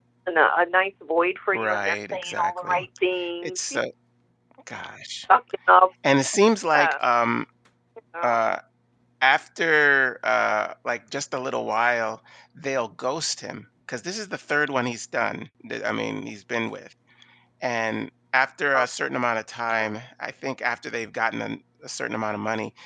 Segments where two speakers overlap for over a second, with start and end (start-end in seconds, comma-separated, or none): 1.5-2.8